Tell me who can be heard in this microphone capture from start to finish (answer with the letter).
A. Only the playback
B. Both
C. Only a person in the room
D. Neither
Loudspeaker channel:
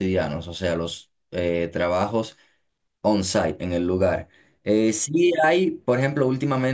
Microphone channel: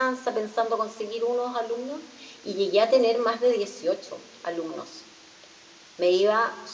C